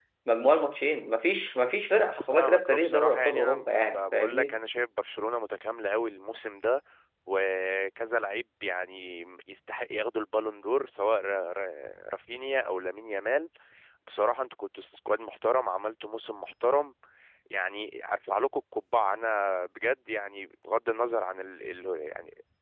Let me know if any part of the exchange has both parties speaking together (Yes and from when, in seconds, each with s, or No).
Yes, from 2.3 s